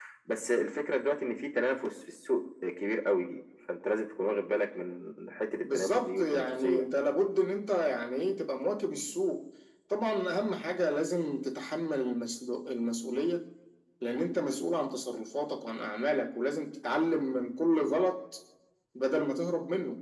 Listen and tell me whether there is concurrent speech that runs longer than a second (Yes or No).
Yes